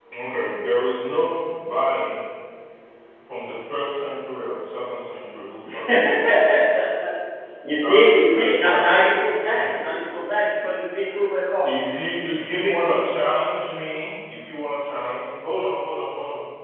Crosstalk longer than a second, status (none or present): present